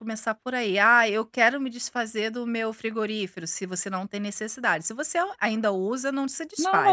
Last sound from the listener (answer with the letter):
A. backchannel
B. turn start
B